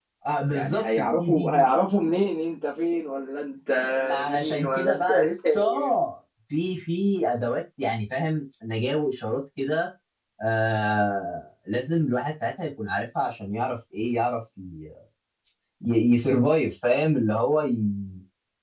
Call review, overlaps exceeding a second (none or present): present